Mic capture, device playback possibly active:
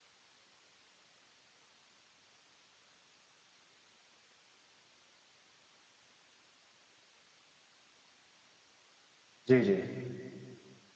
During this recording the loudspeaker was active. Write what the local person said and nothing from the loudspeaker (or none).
जी, जी।